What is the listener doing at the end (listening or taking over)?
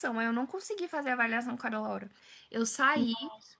listening